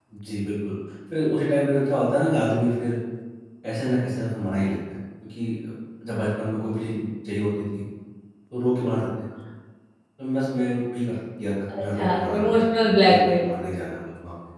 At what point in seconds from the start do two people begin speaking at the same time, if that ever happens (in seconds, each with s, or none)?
11.7 s